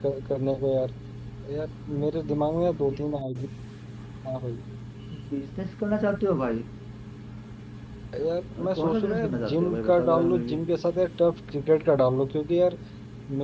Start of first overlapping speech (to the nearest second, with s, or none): 9 s